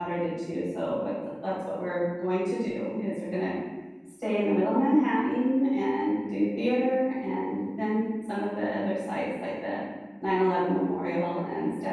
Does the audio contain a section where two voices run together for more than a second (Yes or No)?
No